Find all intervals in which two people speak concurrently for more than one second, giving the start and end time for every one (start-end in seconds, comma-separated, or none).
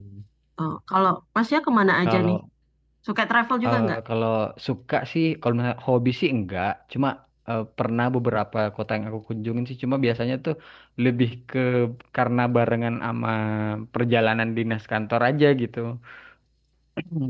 none